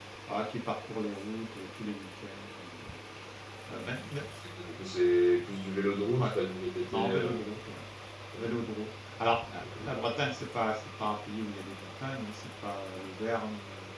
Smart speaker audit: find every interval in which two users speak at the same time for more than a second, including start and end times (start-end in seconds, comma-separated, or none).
none